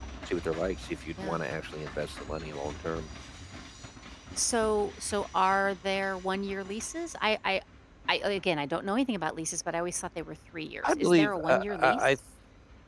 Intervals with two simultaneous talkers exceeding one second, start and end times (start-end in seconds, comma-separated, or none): 10.8-12.1